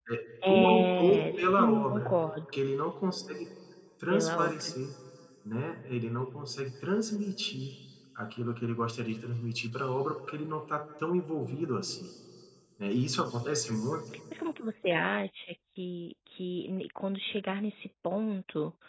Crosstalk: present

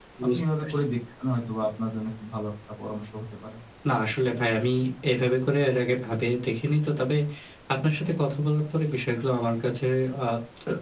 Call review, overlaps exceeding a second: none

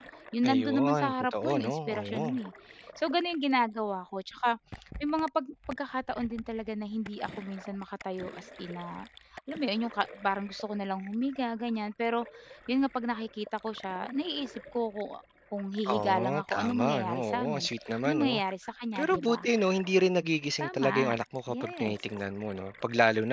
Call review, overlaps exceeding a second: present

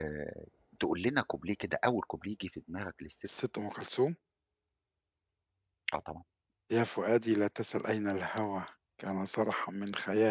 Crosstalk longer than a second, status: none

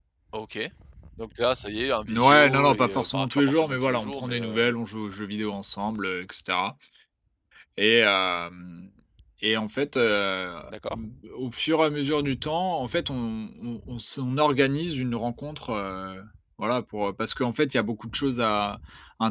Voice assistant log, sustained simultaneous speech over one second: present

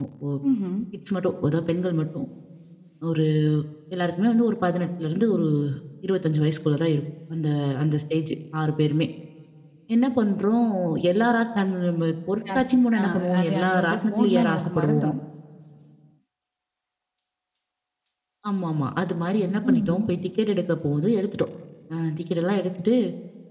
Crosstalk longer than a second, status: present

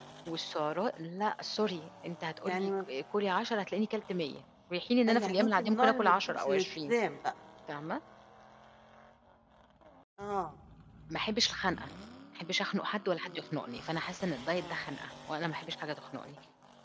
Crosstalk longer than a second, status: present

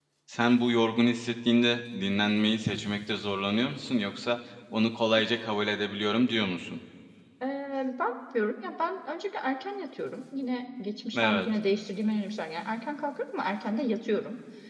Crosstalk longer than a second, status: none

